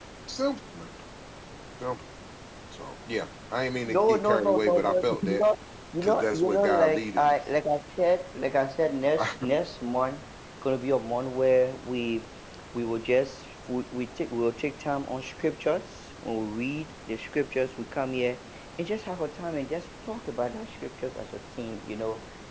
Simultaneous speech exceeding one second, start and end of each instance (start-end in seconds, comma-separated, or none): 3.9-5.4, 6.0-7.3